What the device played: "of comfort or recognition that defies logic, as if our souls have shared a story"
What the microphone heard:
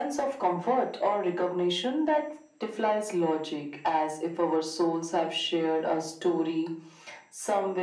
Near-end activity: none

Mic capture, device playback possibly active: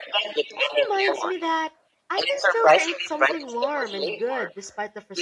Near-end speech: present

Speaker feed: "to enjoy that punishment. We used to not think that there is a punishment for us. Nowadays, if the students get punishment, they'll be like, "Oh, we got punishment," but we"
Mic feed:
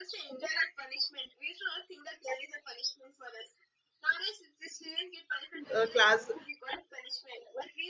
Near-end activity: present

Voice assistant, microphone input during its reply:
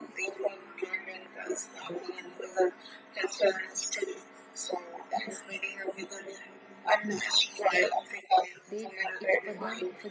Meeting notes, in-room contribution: present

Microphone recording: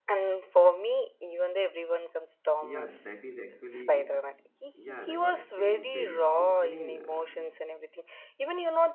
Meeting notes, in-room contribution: present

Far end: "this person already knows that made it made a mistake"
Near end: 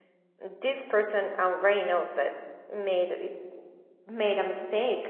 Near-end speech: none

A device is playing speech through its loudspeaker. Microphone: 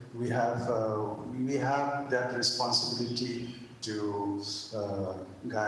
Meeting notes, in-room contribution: none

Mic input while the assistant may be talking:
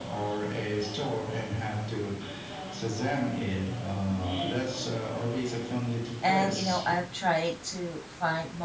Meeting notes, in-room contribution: present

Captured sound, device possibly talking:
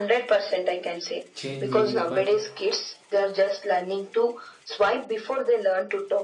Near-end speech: present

